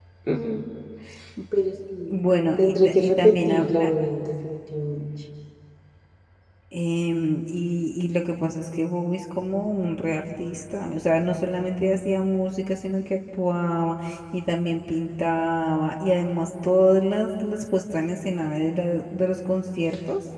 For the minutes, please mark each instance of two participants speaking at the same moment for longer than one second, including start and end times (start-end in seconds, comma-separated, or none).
2.1-3.7